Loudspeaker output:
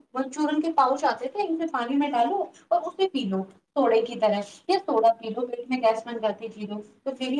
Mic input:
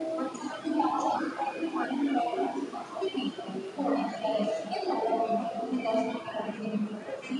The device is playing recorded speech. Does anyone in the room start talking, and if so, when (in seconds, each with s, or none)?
none